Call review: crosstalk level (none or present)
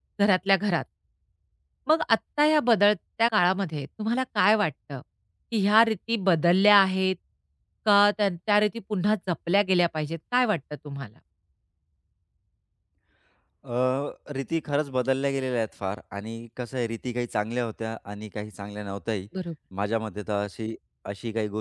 none